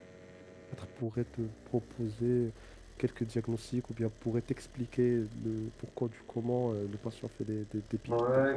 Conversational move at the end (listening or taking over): taking over